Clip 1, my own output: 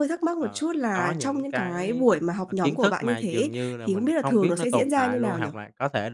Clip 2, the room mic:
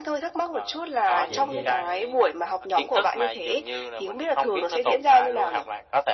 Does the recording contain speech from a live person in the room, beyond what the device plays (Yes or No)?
Yes